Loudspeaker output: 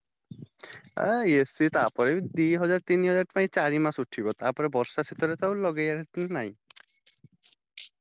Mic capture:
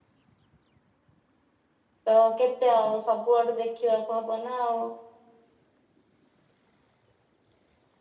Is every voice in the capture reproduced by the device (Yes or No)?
No